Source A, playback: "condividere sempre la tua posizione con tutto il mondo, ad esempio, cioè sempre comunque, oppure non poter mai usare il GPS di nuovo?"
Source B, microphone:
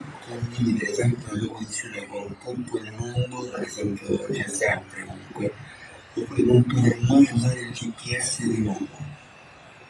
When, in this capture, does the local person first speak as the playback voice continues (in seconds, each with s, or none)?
none